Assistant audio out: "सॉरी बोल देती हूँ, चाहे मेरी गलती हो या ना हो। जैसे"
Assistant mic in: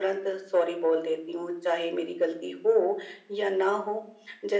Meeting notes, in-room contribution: none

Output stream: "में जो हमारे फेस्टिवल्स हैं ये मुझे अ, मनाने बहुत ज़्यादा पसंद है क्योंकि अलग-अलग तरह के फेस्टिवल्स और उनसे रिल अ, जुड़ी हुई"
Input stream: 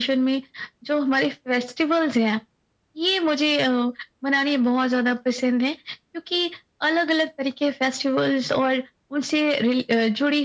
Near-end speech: none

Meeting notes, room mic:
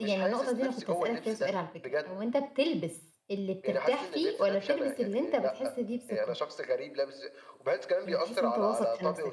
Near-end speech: present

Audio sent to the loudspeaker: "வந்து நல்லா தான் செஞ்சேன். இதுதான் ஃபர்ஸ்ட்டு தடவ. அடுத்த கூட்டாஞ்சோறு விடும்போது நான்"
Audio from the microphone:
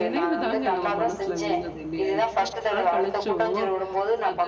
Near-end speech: present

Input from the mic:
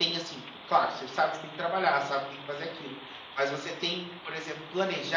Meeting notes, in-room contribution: present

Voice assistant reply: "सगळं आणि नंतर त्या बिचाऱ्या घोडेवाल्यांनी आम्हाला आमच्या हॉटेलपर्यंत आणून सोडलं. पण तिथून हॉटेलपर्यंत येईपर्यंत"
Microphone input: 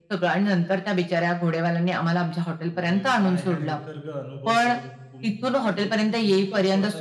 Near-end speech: present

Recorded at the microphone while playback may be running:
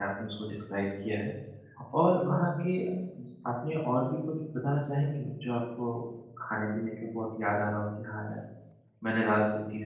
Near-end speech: present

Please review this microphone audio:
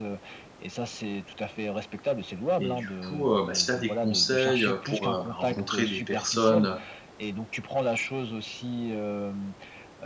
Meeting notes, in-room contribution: present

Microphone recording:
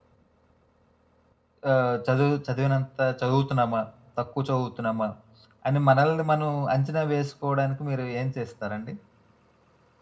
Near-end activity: present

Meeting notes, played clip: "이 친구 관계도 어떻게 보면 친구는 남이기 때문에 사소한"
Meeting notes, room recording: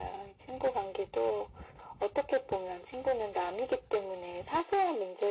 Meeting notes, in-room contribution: none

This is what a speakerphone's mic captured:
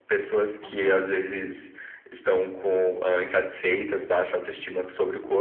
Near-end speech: present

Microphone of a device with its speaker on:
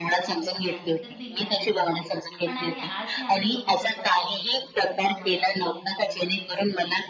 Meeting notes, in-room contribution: present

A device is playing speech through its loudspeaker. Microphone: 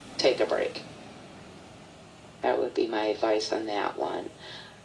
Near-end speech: none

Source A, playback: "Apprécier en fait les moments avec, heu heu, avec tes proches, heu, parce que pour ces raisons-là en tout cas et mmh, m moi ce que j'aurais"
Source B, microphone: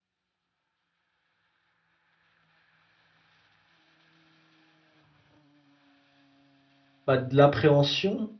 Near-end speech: present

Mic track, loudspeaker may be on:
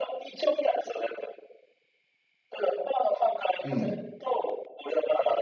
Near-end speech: present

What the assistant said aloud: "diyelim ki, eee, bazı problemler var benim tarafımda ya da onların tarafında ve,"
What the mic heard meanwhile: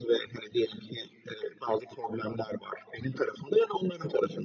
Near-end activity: none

